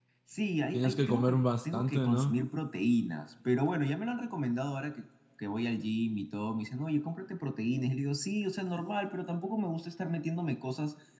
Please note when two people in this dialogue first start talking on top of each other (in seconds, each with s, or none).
0.7 s